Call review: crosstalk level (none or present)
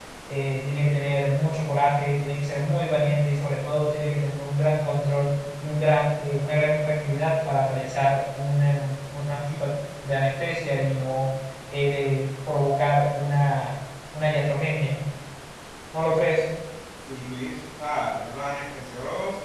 none